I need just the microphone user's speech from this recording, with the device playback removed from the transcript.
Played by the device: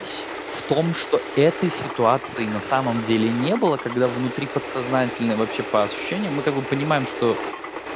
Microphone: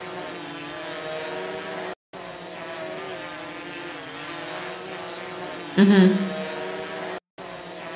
Мгм.

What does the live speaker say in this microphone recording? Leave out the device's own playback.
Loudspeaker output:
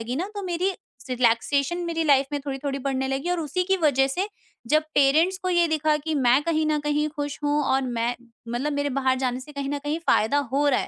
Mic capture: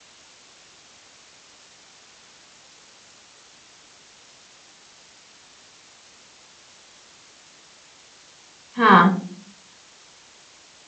हाँ।

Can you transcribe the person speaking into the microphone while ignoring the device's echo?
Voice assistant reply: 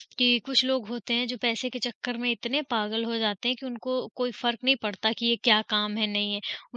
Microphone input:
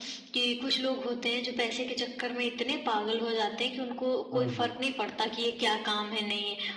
हुँ, हुँ।

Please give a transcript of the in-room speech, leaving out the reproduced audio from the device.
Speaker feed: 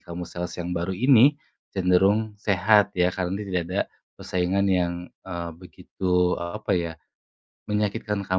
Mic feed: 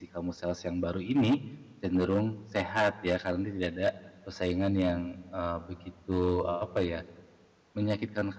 none

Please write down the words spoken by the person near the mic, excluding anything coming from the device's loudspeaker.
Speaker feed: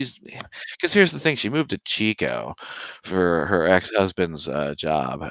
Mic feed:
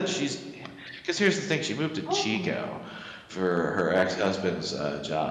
Oh,

